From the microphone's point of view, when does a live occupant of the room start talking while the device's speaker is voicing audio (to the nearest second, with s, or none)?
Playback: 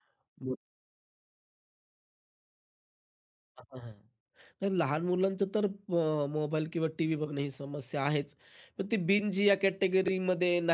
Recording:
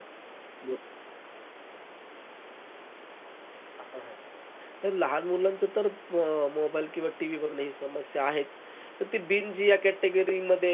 none